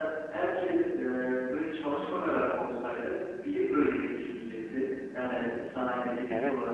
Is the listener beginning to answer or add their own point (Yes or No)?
No